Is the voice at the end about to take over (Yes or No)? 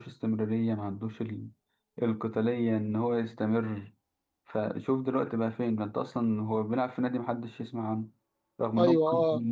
No